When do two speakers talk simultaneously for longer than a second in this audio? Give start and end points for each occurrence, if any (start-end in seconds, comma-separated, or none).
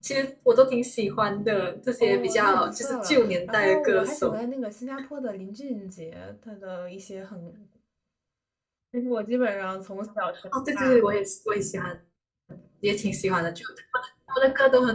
2.0-4.3